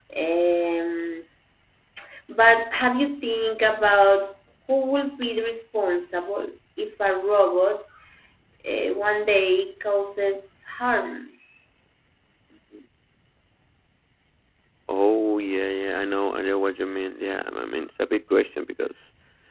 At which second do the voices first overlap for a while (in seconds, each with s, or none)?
none